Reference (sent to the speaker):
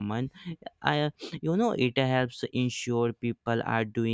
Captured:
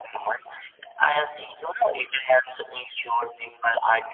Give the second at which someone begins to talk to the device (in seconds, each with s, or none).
none